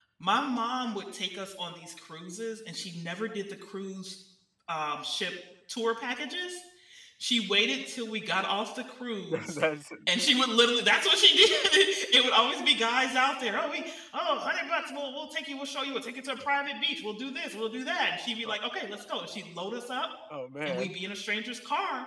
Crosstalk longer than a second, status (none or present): none